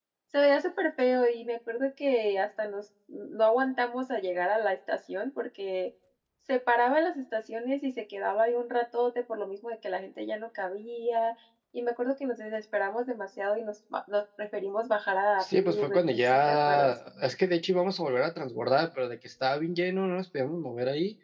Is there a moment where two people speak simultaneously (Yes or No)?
Yes